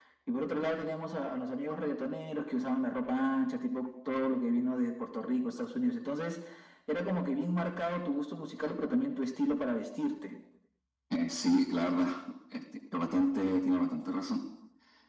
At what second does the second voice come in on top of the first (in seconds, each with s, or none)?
none